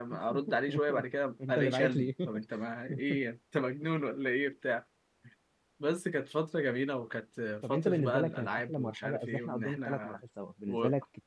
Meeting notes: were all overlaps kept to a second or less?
No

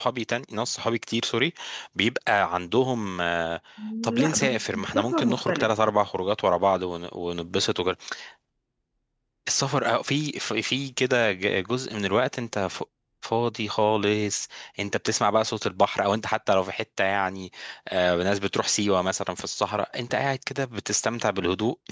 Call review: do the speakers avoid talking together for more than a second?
No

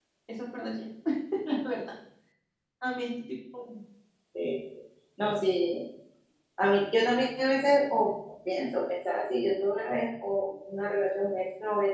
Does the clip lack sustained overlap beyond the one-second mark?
Yes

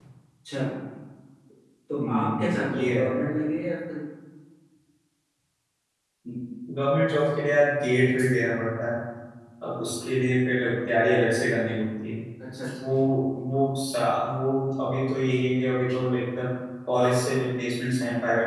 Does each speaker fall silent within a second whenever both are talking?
No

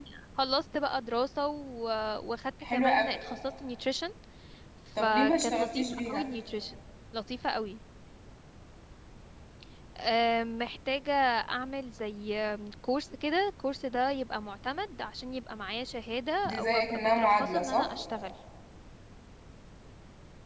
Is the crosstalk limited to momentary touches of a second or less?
No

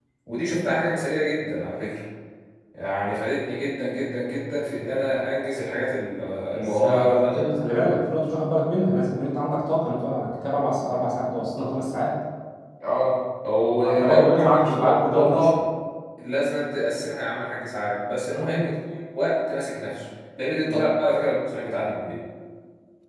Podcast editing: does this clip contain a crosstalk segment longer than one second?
Yes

